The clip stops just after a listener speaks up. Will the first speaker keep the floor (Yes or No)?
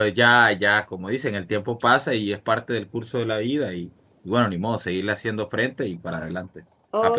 No